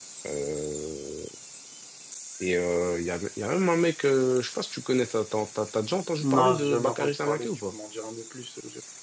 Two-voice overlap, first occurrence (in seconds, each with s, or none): 6.2 s